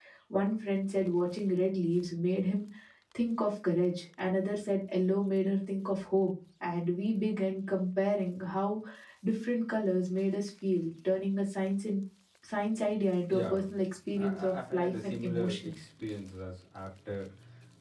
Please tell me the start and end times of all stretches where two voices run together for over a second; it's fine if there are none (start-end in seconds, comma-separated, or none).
14.2-15.8